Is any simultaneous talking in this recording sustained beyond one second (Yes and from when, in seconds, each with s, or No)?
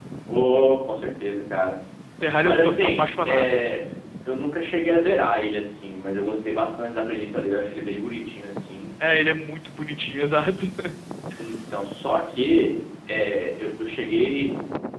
Yes, from 2.4 s